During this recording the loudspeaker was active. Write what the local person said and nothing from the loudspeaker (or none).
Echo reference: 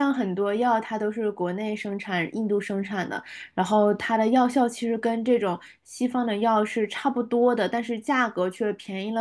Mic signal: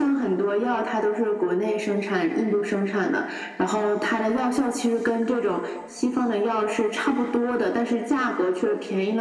none